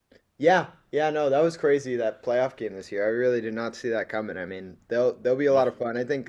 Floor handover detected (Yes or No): No